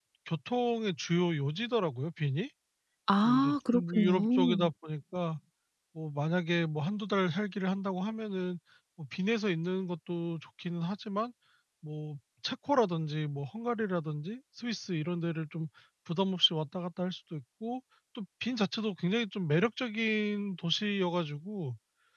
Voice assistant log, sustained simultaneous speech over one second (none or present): present